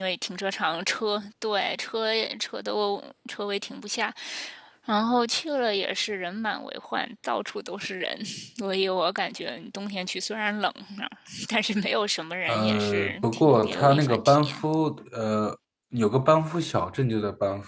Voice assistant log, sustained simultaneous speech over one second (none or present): present